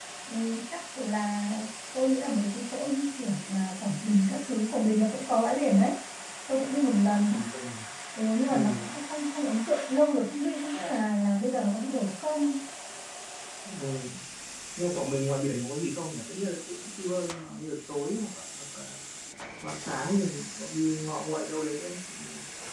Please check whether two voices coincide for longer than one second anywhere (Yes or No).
No